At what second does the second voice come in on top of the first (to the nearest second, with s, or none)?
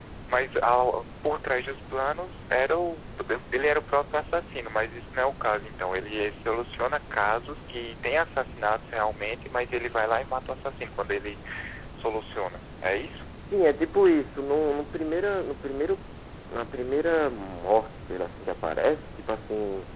none